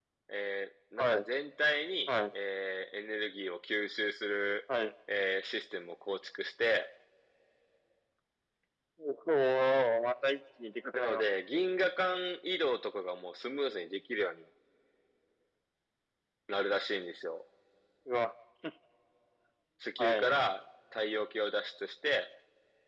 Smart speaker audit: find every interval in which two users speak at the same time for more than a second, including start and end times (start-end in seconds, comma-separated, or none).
none